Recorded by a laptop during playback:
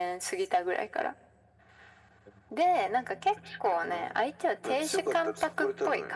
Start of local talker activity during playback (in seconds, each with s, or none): none